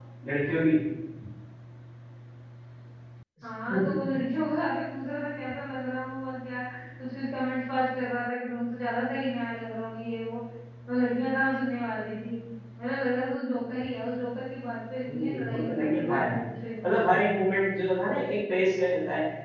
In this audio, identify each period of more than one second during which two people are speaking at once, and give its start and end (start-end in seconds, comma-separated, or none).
15.1-16.4